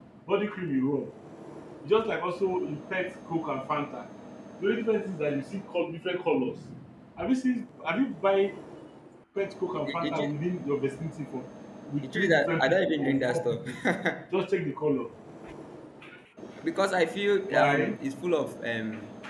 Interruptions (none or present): present